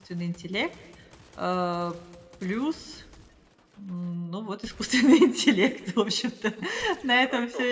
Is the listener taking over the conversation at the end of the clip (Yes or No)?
Yes